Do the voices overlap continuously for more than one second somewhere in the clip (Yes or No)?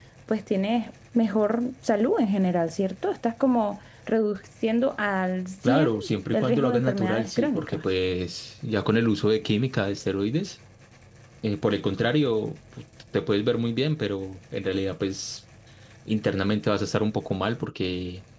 Yes